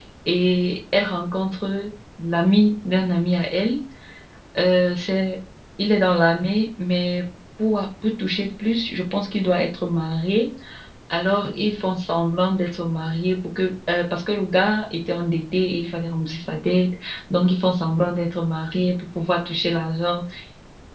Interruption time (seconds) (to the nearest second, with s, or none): none